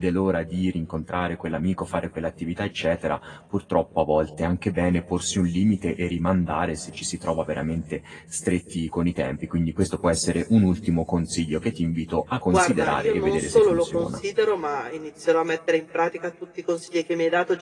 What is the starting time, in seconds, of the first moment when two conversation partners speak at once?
12.5 s

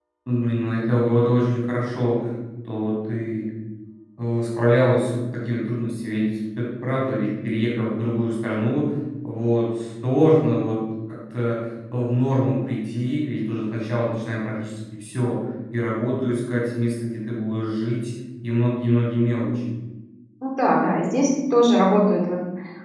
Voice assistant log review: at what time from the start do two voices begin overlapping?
none

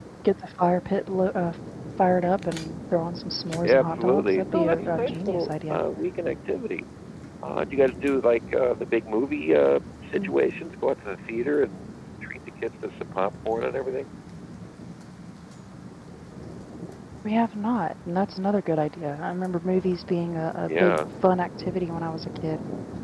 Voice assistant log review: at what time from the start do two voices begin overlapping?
3.6 s

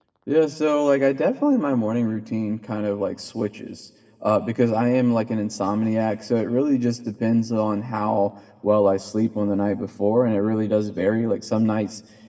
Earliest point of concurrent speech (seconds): none

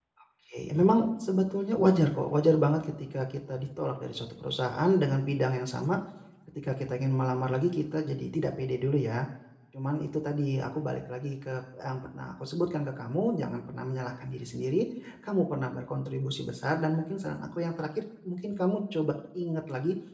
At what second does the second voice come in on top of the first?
none

